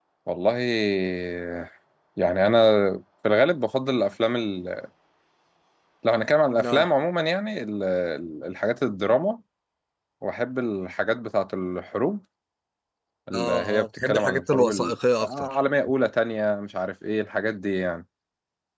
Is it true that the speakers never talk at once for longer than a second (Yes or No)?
No